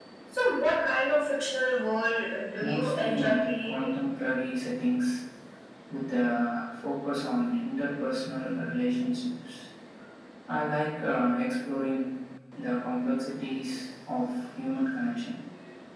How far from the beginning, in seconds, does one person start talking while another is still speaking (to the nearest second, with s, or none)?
3 s